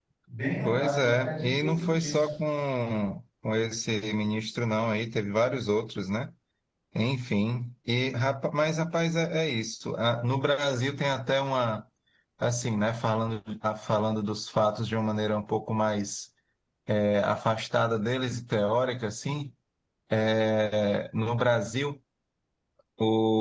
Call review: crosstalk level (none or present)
present